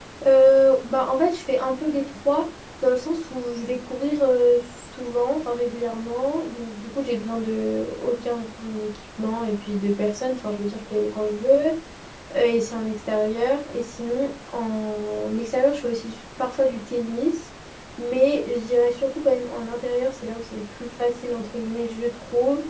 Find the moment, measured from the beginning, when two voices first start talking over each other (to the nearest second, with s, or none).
none